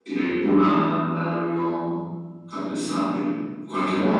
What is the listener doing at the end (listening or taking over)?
taking over